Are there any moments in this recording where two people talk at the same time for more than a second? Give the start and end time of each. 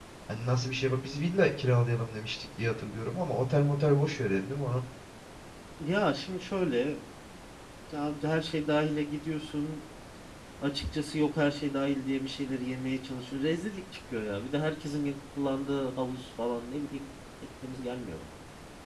none

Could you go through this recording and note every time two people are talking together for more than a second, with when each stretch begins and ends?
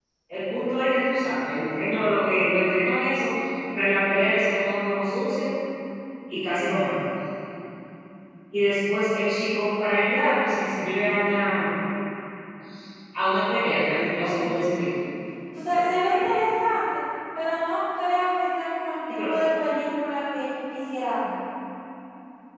none

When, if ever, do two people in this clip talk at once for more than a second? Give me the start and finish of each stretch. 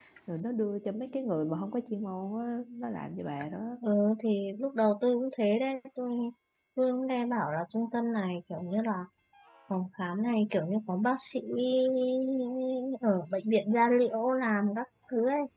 none

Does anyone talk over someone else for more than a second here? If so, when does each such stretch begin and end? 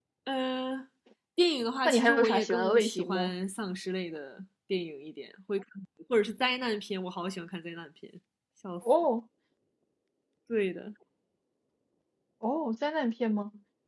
1.9-3.3

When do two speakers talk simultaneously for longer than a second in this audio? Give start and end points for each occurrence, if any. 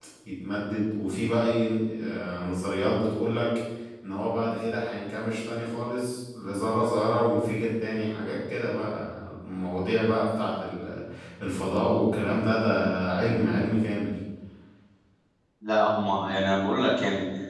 none

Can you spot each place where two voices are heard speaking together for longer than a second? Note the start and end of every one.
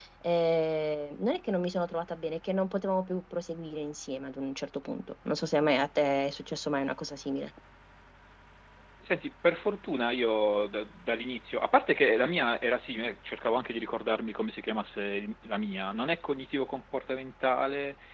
none

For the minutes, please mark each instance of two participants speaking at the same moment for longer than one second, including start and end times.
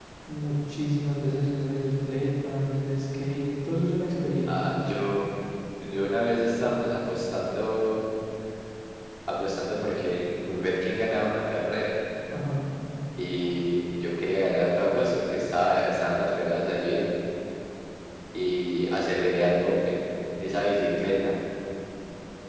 none

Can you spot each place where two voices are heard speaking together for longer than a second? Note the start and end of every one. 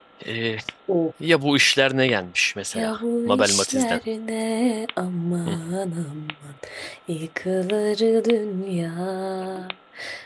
2.7-4.0

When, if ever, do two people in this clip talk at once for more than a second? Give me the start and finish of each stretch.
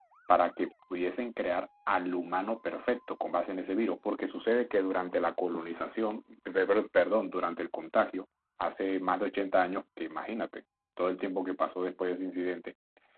none

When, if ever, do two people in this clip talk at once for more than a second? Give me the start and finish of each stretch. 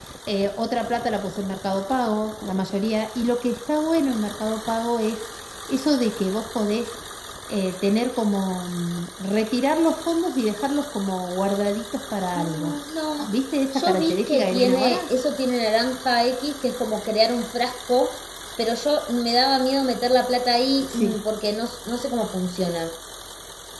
13.7-15.0

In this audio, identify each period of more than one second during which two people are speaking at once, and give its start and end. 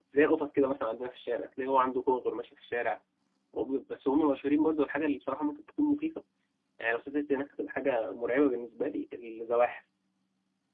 none

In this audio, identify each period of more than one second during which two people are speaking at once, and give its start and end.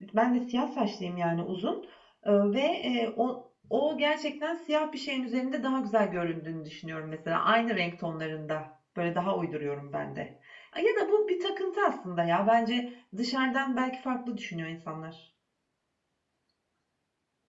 none

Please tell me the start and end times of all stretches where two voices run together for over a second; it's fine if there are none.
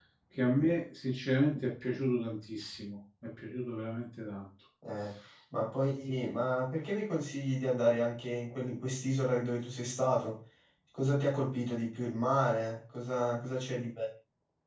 none

